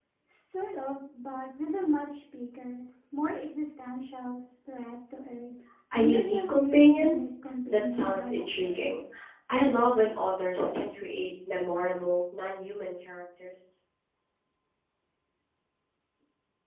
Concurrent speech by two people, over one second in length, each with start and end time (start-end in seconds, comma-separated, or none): 5.9-7.2, 7.7-8.9